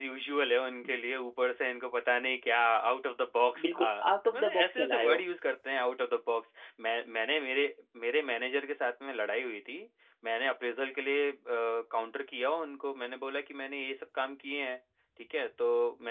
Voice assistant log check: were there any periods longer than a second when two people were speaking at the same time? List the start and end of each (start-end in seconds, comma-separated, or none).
3.6-5.2